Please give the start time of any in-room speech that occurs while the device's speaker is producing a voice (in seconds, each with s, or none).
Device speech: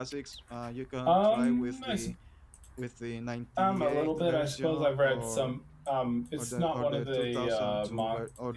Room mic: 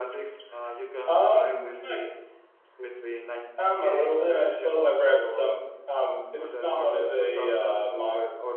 none